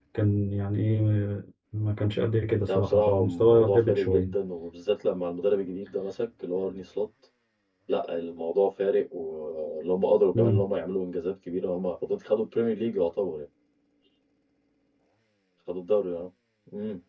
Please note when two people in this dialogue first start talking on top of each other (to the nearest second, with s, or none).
3 s